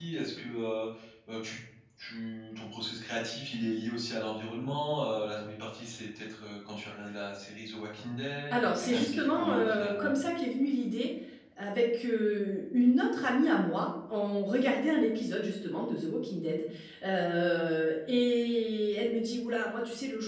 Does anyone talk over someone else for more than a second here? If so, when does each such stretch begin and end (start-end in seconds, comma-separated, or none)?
8.5-10.2